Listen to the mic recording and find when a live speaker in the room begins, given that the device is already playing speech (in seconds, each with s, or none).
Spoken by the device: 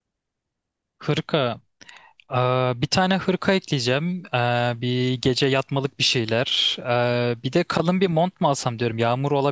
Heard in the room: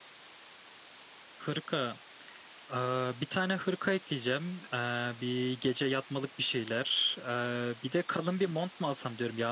none